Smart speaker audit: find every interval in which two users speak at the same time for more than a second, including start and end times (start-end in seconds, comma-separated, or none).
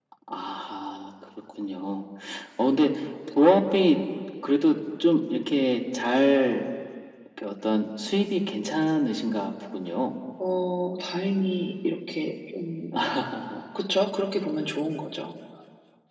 none